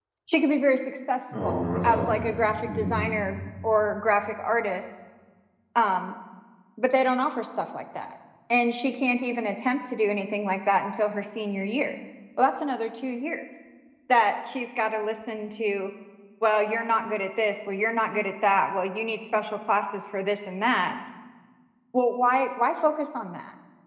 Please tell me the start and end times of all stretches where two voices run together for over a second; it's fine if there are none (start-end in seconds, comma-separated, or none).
1.3-3.0